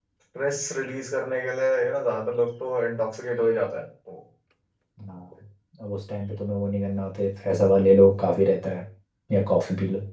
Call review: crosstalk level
none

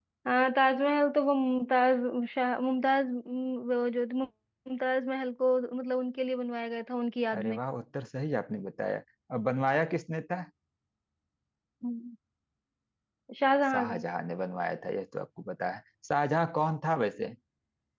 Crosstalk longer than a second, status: none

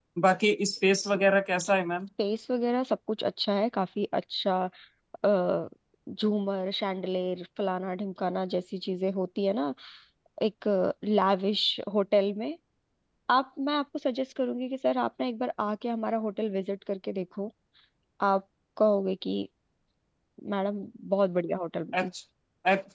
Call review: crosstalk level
none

